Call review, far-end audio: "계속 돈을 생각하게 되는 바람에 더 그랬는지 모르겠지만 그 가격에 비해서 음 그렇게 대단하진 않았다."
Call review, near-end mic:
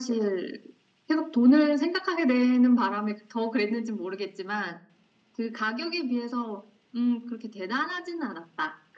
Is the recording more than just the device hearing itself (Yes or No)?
No